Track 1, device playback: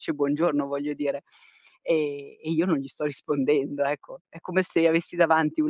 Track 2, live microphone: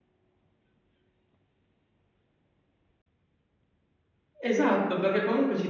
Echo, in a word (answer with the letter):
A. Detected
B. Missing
B